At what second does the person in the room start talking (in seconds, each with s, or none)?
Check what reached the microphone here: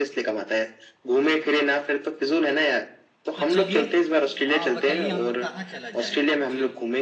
3.4 s